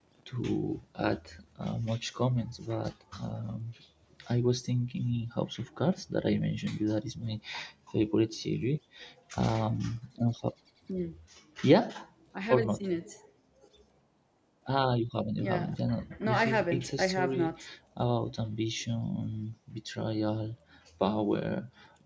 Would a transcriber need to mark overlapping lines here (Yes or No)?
Yes